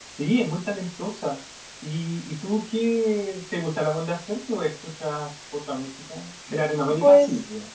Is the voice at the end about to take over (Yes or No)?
Yes